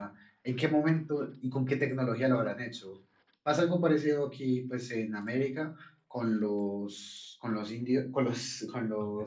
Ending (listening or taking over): listening